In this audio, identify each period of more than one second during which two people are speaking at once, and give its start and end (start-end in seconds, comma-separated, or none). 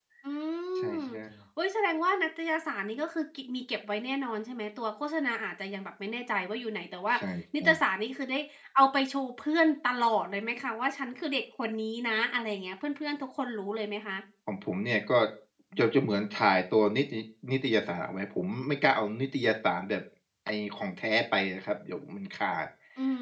none